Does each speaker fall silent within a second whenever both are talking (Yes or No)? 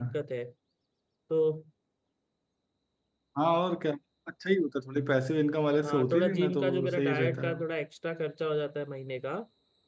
No